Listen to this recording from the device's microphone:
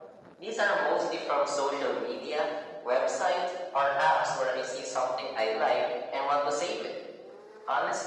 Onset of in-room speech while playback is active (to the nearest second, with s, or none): none